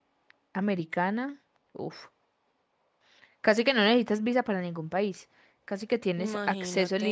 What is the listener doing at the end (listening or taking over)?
listening